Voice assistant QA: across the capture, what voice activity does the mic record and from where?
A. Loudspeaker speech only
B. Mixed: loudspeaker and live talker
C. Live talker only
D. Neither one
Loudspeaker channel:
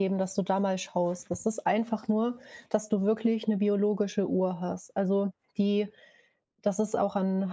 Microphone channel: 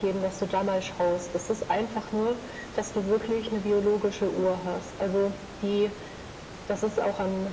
A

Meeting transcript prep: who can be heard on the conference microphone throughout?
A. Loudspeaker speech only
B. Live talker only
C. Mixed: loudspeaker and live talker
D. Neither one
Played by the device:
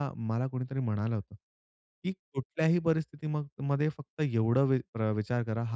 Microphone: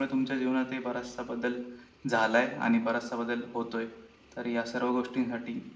B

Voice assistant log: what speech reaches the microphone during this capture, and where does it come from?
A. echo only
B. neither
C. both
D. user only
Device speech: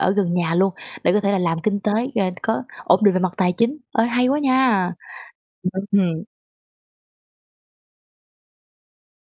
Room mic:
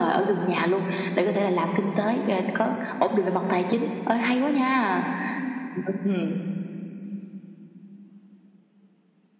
A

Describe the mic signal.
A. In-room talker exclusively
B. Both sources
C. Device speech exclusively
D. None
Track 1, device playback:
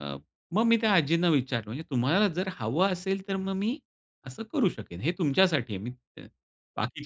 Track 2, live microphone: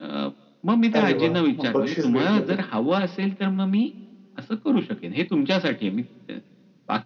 B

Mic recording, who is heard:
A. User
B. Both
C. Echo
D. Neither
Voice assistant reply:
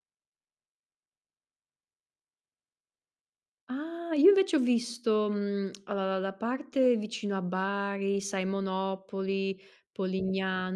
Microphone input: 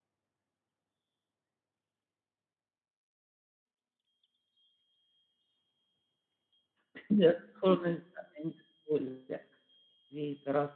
A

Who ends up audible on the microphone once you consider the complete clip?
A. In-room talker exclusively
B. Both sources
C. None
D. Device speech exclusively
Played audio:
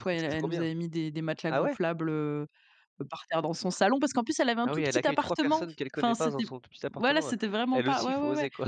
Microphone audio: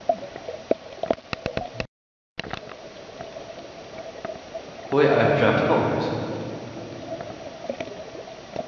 A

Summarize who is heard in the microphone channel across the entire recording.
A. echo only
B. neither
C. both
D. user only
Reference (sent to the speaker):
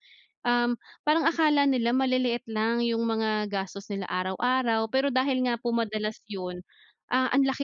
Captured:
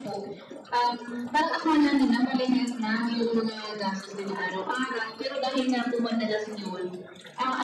A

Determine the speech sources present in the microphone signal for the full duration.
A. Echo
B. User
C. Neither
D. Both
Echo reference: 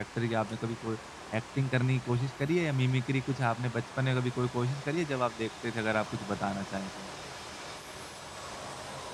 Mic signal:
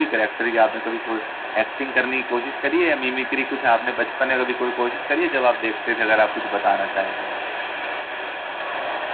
A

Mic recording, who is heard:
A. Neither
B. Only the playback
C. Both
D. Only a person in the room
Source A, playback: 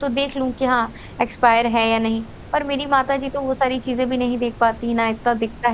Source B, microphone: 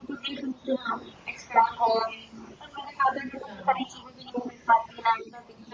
C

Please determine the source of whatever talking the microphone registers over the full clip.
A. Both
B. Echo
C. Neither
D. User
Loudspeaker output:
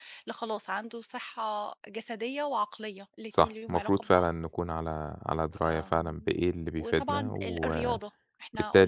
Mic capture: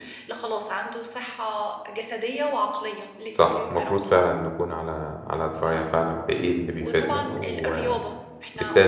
B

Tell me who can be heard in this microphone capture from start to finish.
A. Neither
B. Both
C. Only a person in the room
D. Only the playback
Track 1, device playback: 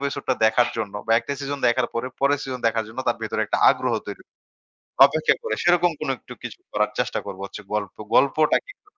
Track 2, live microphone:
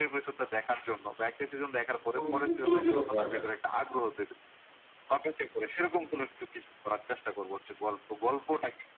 B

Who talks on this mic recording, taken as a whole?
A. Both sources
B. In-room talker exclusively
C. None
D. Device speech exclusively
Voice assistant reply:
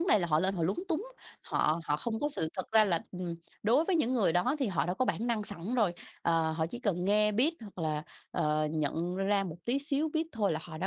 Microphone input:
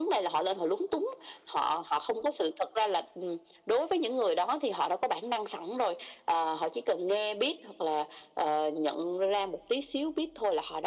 D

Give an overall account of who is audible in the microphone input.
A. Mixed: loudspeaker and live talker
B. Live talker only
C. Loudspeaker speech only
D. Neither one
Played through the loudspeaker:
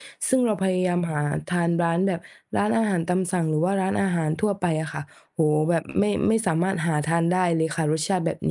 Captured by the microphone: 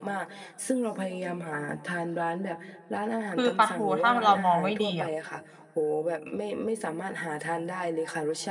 A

